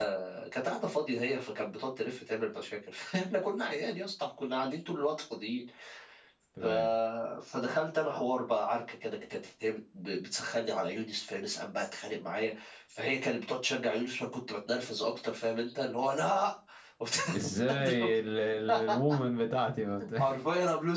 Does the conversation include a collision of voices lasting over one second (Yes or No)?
No